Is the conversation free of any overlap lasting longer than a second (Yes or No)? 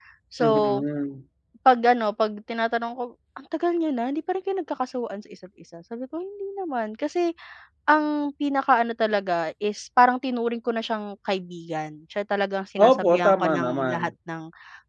No